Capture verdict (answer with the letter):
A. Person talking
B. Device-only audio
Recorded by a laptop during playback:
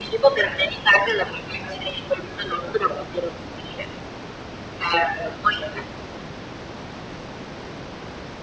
B